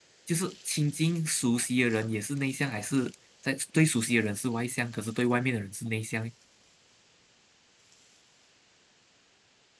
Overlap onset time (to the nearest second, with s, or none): none